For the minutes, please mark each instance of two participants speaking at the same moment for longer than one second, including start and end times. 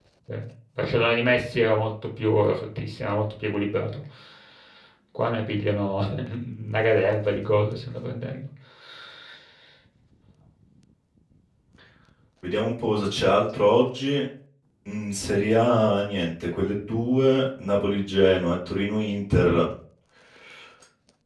none

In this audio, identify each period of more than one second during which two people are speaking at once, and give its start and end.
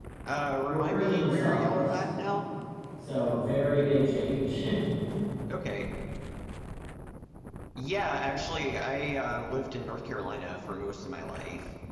0.7-2.0

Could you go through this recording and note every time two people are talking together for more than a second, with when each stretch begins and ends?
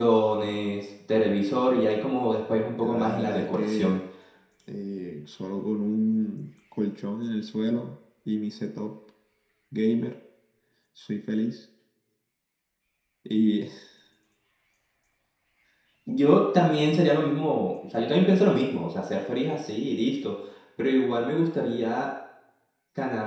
2.7-4.0

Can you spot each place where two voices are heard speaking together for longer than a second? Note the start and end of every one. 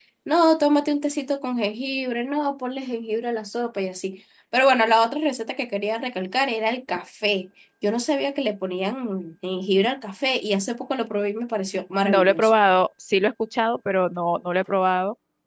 none

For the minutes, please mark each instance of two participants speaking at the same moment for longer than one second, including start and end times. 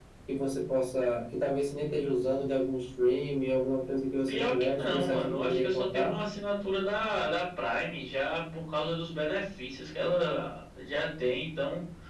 4.3-6.1

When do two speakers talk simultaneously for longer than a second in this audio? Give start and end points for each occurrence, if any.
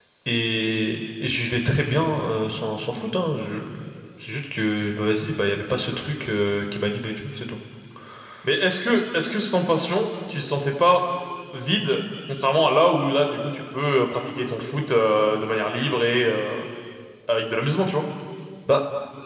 none

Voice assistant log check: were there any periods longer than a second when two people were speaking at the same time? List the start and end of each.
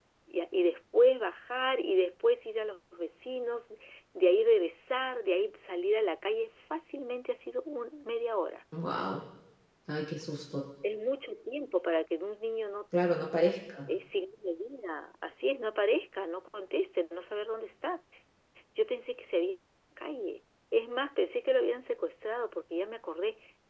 none

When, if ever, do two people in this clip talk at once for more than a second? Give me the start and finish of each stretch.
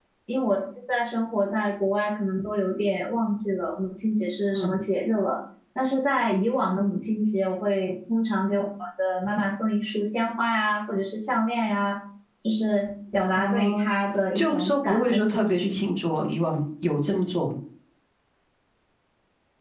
14.3-15.7

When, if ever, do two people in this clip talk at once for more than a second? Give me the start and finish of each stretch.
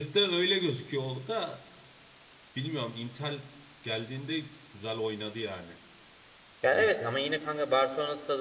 none

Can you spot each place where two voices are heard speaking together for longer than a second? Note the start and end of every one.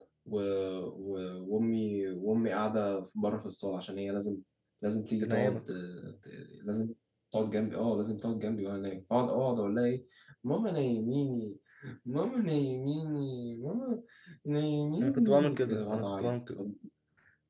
15.0-16.4

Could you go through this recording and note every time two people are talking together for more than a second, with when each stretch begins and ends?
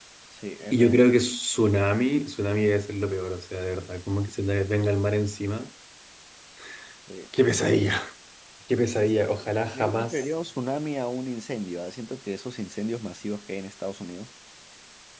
9.0-10.2

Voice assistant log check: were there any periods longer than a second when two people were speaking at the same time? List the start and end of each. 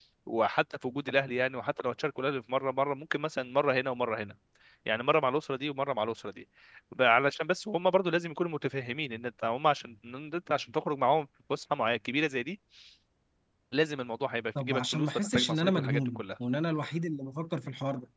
14.6-16.2

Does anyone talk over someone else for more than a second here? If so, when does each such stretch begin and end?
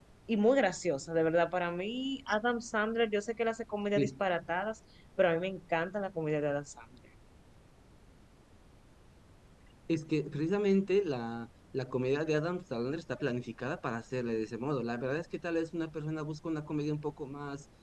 none

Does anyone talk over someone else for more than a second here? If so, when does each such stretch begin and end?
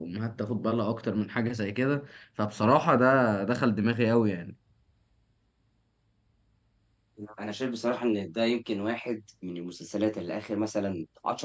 none

